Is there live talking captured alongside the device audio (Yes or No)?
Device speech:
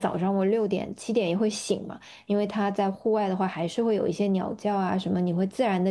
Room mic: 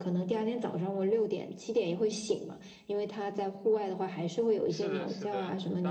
Yes